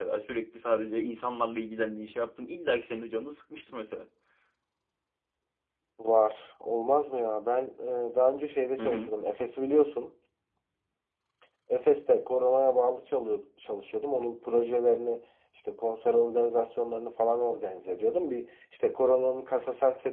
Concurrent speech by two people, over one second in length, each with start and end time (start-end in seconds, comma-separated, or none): none